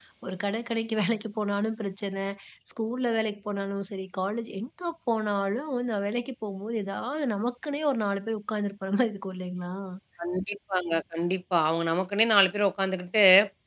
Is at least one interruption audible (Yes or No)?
No